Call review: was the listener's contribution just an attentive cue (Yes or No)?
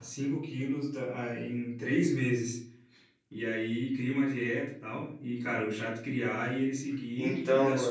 Yes